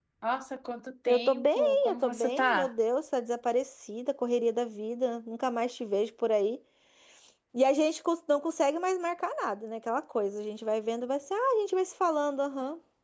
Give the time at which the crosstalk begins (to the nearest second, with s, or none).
1 s